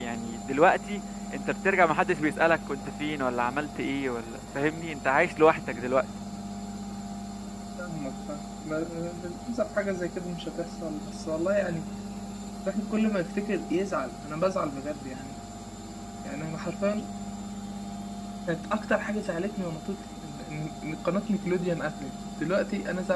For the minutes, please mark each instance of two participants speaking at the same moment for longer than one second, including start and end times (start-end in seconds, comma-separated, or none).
none